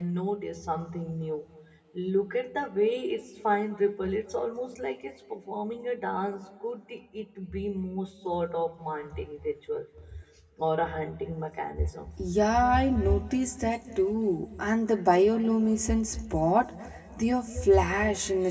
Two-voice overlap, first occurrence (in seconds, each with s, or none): none